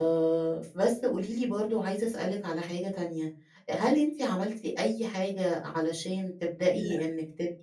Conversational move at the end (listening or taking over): listening